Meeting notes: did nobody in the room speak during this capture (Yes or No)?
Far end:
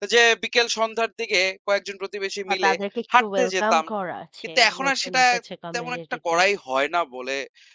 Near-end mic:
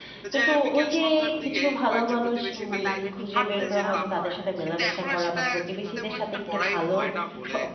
No